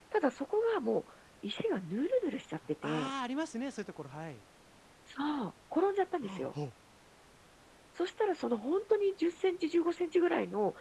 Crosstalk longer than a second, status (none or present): none